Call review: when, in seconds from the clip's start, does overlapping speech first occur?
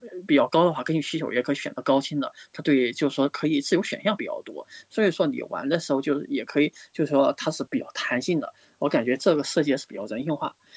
none

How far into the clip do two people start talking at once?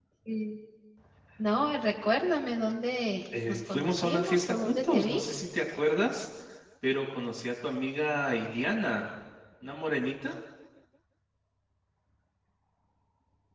3.3 s

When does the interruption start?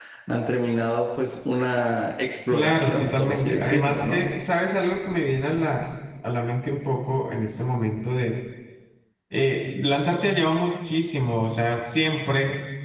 2.5 s

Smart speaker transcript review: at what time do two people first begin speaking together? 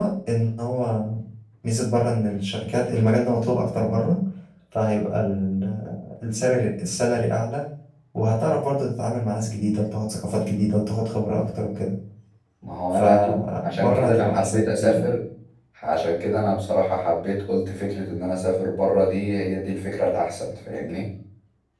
12.9 s

